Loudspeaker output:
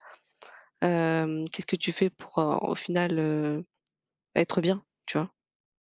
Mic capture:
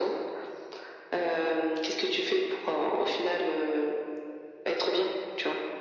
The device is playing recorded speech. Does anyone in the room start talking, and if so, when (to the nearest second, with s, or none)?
none